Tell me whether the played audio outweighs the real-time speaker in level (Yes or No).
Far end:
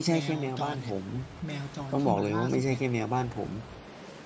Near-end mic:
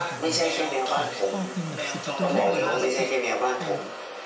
Yes